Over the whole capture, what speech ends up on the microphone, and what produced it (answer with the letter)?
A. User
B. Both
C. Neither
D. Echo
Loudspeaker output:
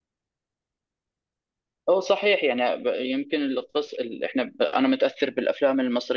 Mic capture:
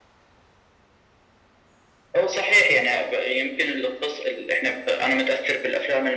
D